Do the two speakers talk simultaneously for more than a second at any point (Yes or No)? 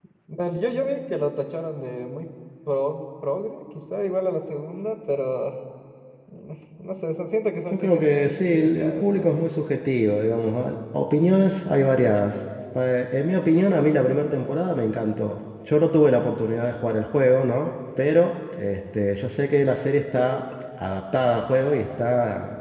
Yes